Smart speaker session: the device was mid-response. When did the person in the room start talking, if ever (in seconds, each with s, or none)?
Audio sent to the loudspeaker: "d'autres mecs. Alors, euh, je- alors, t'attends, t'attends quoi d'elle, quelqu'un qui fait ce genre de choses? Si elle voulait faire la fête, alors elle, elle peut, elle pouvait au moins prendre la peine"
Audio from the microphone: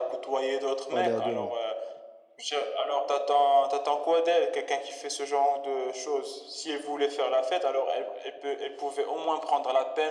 0.9 s